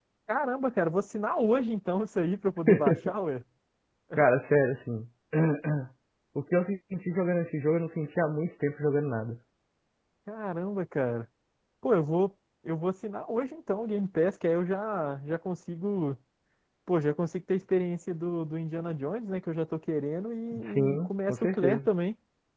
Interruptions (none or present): present